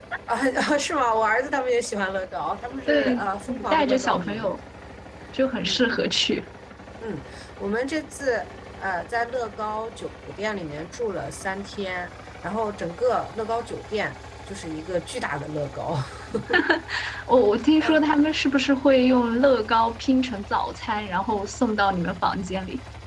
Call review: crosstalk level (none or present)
present